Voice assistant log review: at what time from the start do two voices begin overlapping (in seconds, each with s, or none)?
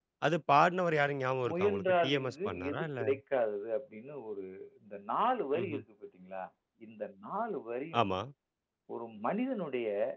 1.5 s